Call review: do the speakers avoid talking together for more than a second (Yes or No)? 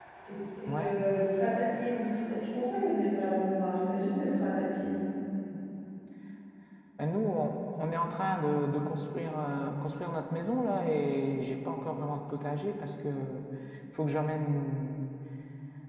Yes